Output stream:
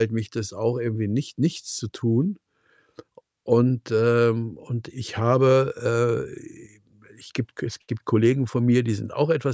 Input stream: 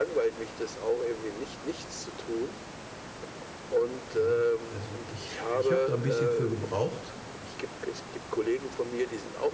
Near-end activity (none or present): present